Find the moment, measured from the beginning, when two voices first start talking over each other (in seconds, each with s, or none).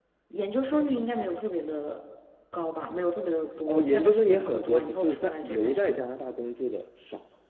3.7 s